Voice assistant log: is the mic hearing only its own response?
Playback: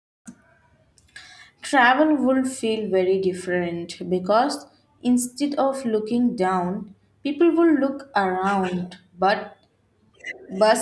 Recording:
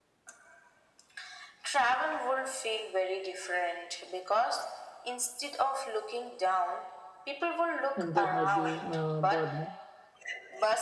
No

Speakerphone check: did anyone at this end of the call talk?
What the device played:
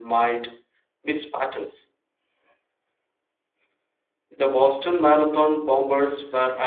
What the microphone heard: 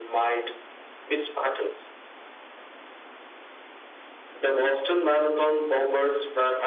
No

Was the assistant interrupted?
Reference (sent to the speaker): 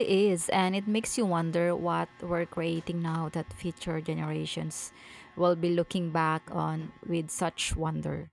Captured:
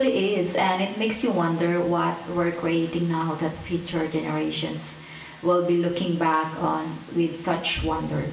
No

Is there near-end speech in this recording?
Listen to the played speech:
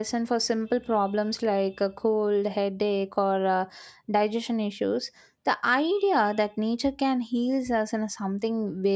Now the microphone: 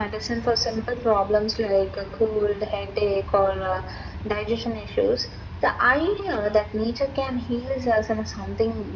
No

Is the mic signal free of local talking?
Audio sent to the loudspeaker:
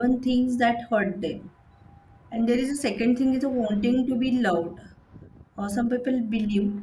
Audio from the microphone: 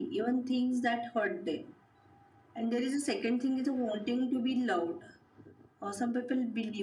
Yes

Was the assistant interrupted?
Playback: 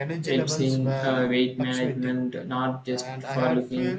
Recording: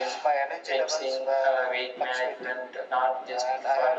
No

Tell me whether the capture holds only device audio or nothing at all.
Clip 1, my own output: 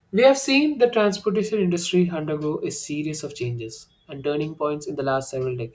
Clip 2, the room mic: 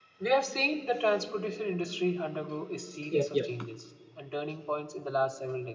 No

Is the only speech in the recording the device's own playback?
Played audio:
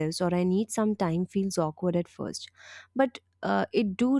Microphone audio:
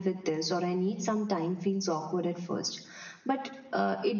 Yes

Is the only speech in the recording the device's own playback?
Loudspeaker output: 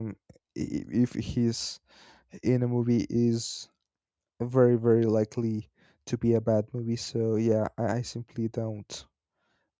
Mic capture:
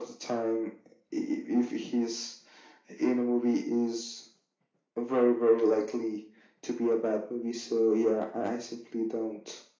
Yes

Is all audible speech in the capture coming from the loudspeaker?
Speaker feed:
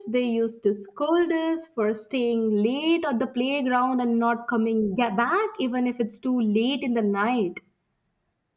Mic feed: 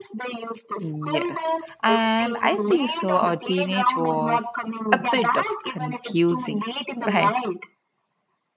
No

